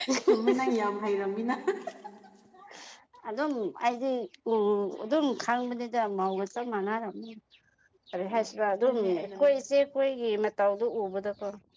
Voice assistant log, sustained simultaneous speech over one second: present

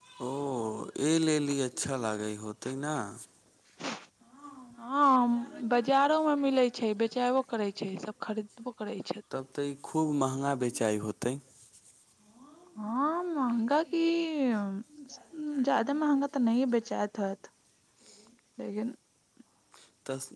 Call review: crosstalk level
none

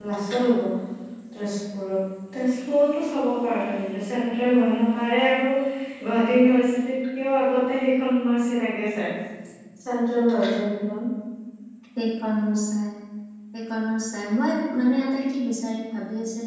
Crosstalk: none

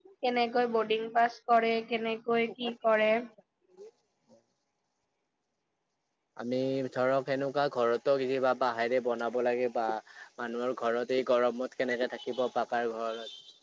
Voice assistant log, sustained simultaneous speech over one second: none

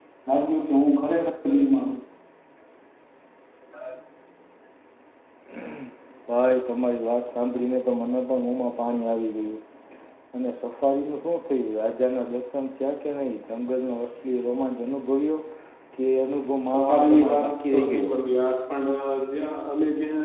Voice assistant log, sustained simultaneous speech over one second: present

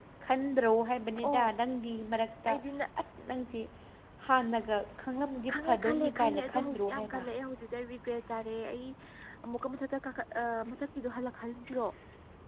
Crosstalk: present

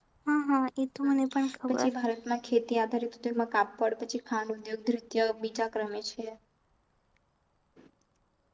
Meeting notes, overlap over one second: none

